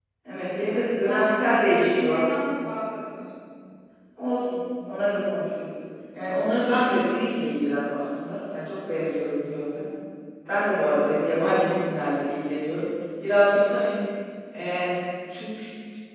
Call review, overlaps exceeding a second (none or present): present